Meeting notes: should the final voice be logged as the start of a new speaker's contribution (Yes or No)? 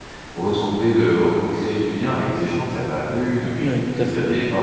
Yes